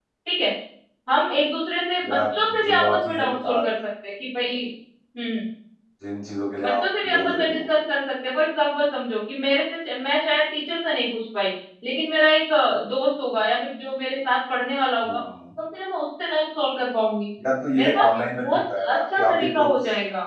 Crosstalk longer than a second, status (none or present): present